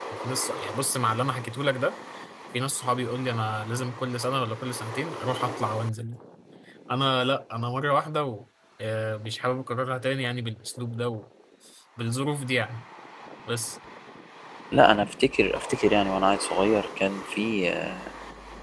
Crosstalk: none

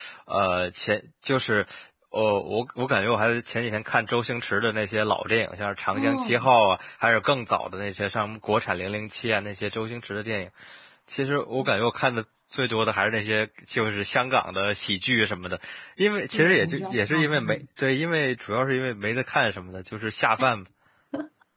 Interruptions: present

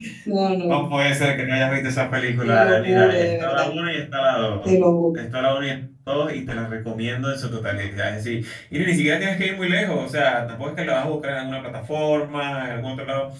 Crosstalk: present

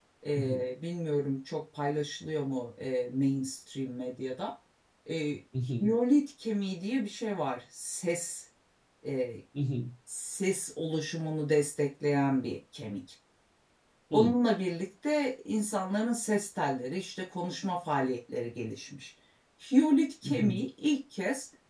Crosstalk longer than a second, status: none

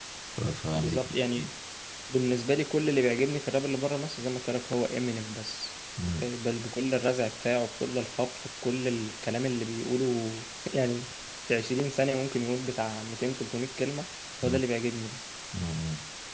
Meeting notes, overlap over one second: none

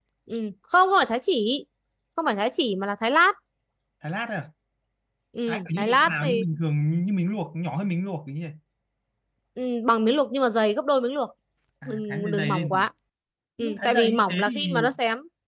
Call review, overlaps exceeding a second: present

